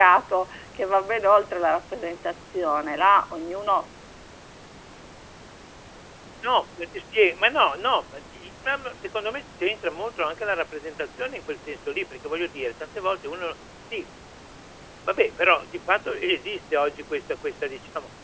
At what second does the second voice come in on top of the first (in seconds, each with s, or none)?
none